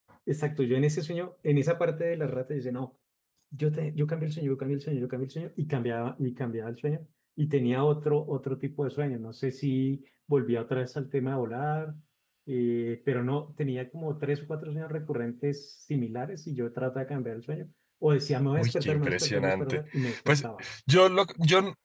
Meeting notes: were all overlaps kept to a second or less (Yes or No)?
No